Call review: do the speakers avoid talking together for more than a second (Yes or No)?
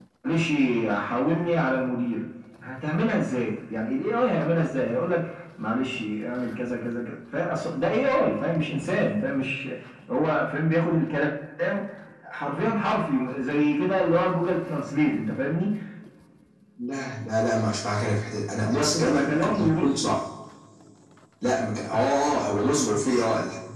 No